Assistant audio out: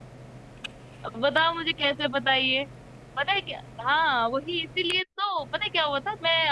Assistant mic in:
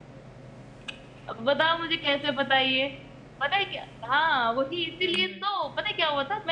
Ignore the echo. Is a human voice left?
Yes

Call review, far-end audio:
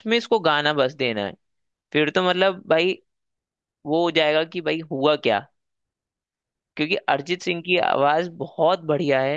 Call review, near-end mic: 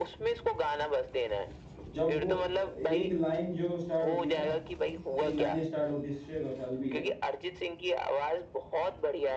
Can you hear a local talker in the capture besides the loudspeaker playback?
Yes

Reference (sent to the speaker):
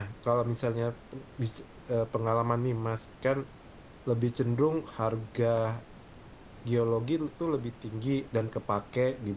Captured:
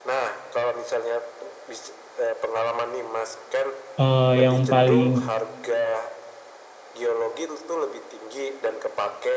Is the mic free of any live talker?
No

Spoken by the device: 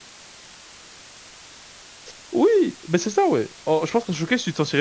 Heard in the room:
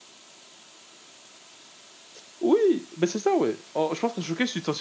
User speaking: No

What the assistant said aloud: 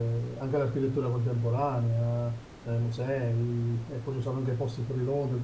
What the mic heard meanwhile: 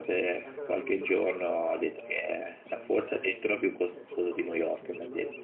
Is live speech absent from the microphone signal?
No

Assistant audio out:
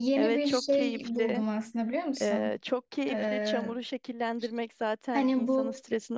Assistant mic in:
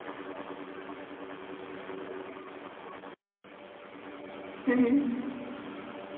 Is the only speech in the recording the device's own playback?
No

